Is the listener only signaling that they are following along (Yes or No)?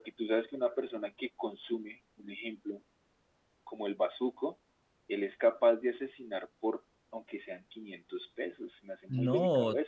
No